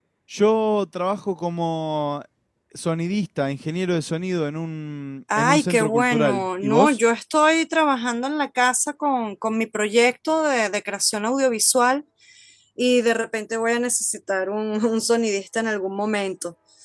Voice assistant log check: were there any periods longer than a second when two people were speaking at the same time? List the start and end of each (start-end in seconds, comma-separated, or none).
5.4-7.0